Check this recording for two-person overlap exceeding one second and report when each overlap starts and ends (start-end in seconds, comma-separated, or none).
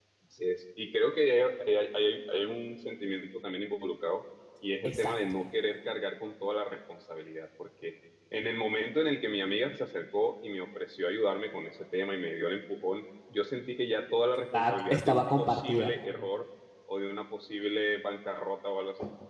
14.5-15.9